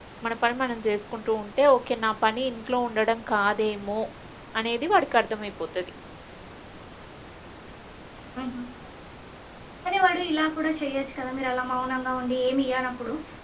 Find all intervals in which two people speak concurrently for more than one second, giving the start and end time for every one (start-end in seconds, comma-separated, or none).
none